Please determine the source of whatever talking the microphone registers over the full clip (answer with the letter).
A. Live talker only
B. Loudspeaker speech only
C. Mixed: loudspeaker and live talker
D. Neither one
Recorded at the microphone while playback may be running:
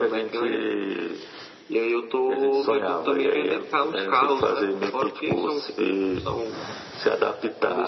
B